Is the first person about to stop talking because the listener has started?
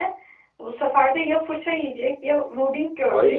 Yes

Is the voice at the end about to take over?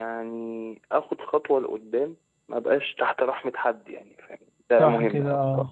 Yes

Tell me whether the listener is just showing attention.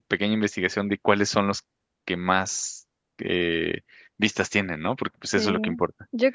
No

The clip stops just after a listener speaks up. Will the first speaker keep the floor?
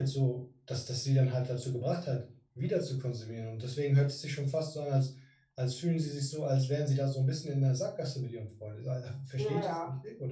No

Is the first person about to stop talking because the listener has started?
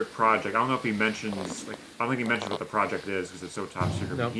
No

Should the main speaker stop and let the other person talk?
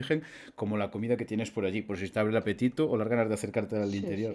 Yes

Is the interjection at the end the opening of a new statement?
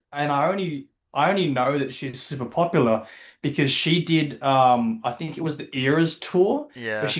No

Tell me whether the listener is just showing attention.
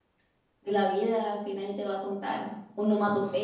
No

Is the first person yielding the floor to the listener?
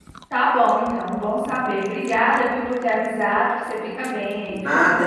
Yes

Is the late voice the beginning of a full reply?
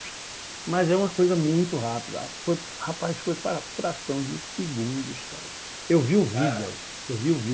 No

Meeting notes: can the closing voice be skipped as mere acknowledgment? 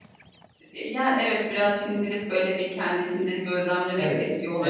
No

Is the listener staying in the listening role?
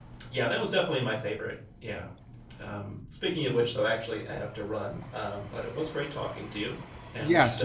No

